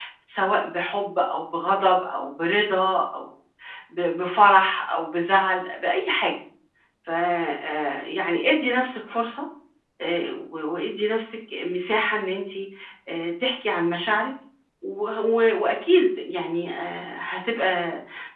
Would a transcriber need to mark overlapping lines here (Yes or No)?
No